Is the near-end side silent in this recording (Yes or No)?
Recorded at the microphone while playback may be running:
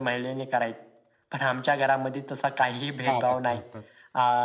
No